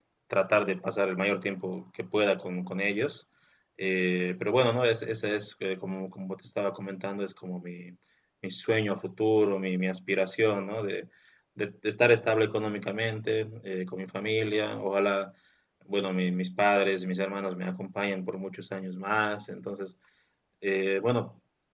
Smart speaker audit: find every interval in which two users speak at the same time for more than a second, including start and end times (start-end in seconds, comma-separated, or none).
none